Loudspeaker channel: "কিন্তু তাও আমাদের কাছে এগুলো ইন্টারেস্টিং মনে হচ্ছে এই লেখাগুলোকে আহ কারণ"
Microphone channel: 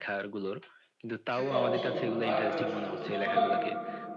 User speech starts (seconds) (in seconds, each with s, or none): 1.4 s